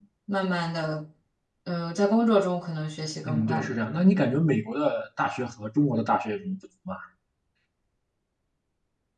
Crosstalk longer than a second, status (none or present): none